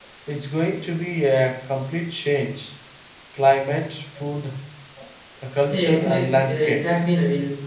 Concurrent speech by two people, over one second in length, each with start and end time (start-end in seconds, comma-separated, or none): 5.7-7.0